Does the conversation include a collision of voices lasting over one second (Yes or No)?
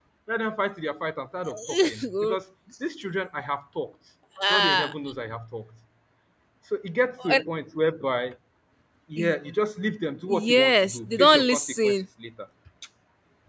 Yes